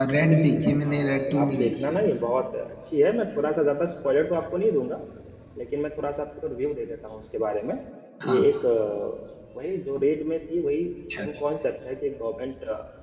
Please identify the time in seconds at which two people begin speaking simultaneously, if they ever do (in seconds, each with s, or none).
0.8 s